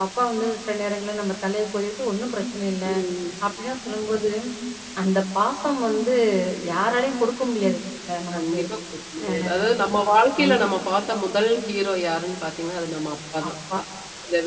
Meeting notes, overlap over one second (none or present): none